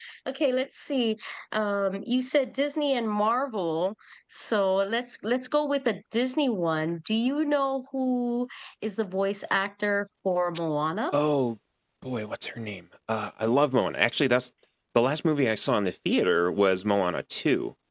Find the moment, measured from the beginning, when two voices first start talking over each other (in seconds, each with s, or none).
none